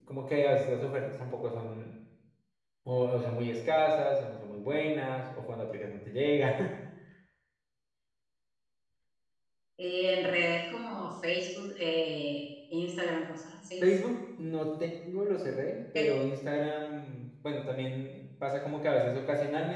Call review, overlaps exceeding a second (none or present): none